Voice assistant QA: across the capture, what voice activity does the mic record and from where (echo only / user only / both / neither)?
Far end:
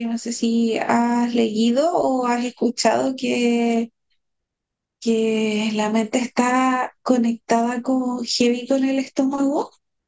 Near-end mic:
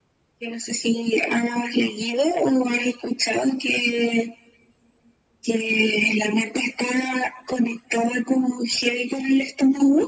echo only